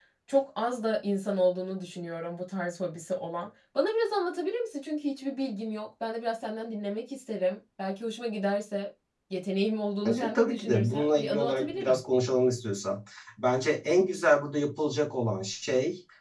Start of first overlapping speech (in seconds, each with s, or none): 10.0 s